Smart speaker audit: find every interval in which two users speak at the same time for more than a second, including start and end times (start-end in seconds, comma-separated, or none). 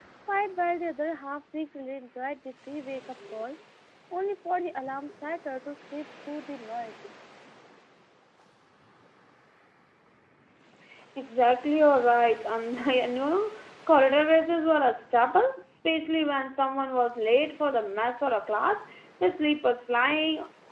none